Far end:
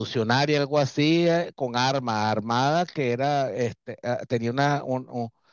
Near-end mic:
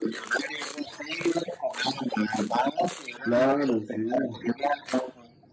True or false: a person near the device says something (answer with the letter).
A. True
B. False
A